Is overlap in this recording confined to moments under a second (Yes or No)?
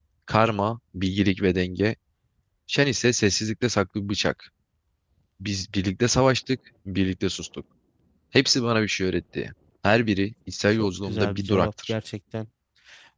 No